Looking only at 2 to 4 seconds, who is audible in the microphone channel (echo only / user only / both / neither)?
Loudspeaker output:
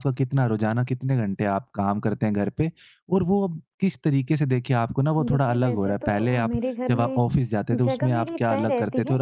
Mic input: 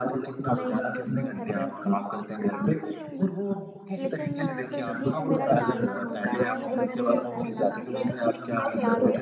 both